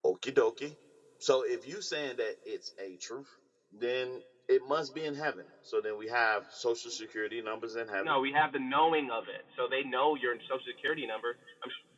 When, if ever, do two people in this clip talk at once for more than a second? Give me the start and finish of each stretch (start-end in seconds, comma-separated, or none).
none